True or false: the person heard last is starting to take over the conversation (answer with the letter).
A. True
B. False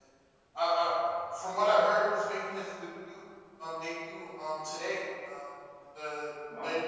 B